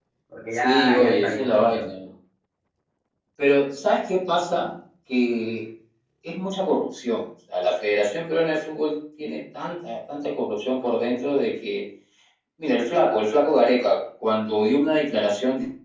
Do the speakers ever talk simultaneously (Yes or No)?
Yes